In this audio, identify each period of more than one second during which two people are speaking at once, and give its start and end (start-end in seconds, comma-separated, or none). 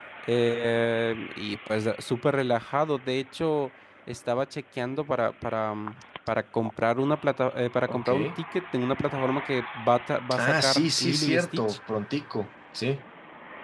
10.4-11.8